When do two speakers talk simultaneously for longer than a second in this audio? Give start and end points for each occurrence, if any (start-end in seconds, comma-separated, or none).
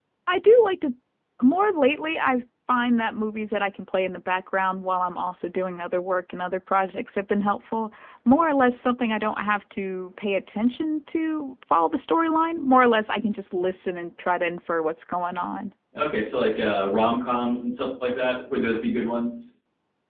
none